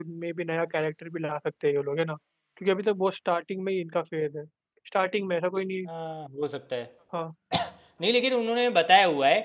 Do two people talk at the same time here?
No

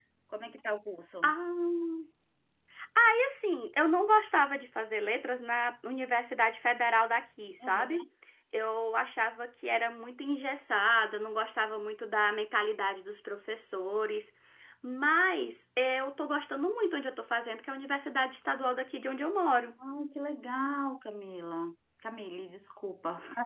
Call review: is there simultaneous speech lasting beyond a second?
No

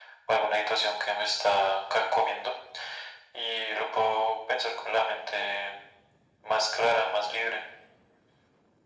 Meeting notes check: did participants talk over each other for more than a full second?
No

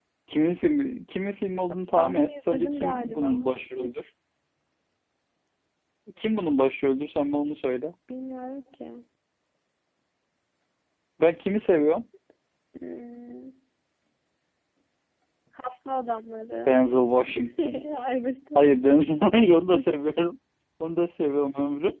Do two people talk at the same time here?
Yes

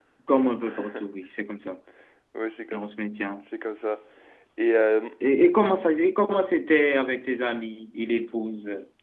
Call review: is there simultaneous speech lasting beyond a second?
No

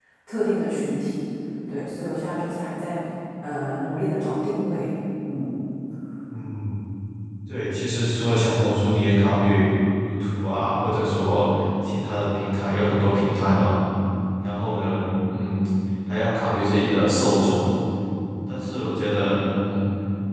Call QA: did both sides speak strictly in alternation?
Yes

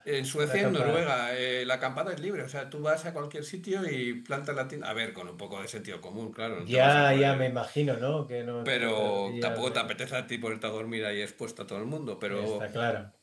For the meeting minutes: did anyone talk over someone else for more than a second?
Yes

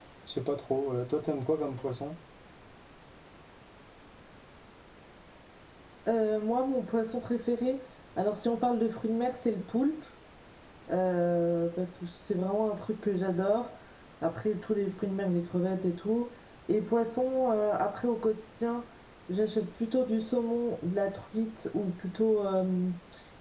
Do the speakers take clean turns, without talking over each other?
Yes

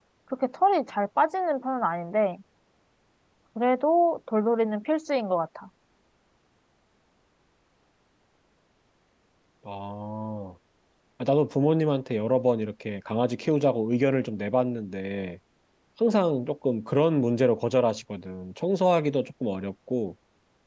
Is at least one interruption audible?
No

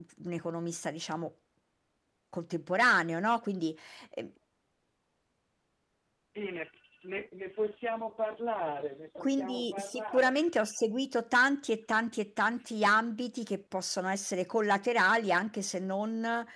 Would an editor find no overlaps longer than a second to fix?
No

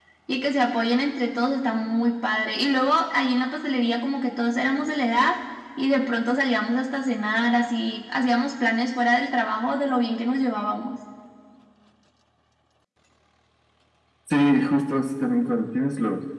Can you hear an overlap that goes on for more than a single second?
No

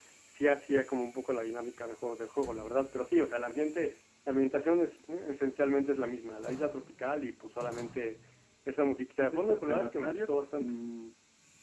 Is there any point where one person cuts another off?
Yes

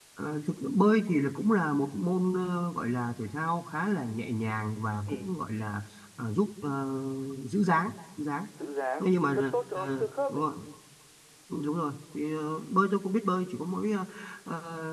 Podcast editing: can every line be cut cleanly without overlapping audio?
No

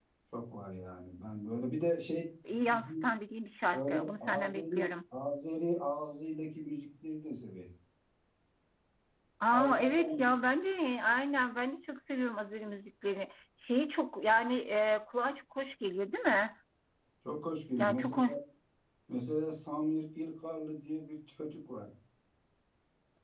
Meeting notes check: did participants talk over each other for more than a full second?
Yes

